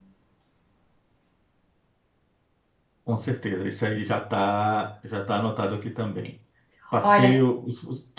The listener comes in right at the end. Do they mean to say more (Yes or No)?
No